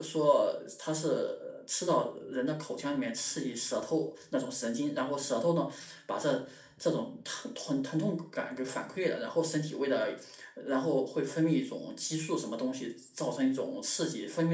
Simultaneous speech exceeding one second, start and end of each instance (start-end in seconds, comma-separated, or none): none